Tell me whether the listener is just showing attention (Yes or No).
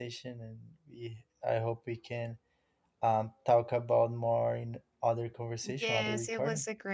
No